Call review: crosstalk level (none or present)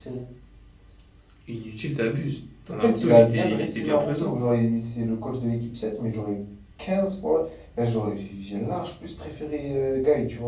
present